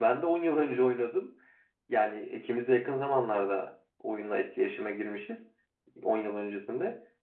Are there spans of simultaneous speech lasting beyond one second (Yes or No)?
No